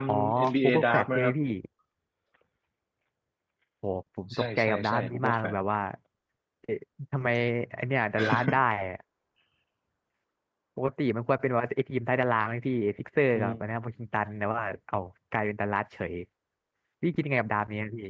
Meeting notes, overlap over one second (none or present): present